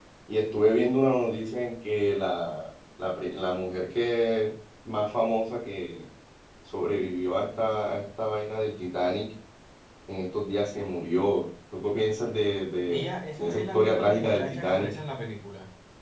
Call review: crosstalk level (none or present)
present